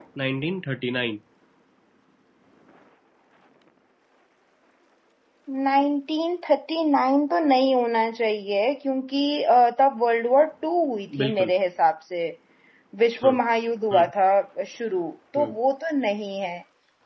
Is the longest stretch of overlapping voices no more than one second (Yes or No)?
Yes